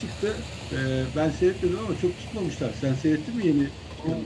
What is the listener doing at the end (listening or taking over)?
taking over